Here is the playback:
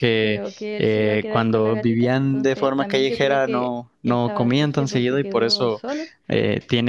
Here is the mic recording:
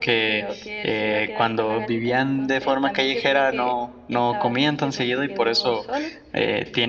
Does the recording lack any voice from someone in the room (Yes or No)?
Yes